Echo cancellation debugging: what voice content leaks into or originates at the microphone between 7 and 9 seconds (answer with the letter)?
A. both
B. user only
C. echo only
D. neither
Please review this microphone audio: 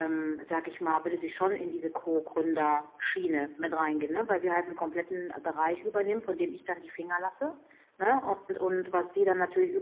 C